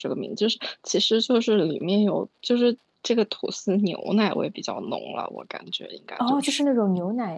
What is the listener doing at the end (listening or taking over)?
taking over